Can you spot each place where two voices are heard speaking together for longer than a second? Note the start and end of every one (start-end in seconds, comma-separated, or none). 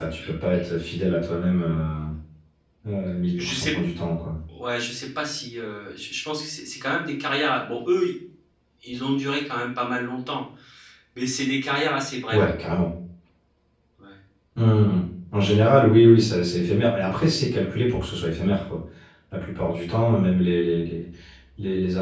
none